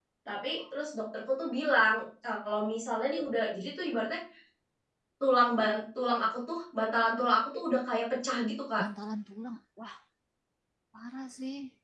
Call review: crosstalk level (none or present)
none